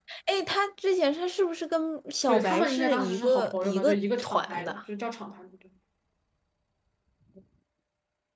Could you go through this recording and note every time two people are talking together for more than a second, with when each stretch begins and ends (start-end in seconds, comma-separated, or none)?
2.3-4.8